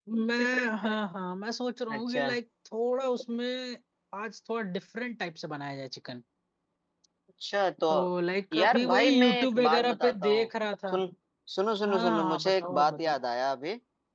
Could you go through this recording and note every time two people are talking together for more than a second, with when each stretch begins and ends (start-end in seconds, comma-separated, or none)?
8.5-10.5, 11.9-13.2